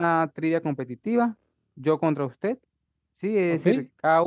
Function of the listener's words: listening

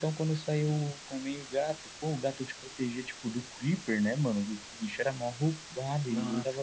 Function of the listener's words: taking over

